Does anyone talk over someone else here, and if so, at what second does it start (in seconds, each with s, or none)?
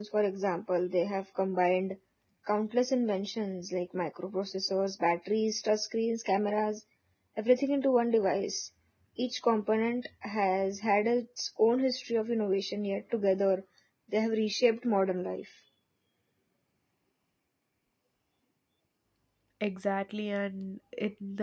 none